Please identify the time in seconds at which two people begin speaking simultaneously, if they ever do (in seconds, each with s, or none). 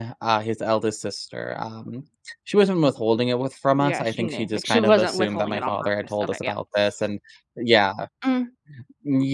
3.8 s